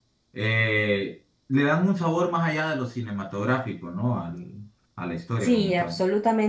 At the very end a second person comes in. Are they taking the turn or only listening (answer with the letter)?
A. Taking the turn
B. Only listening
A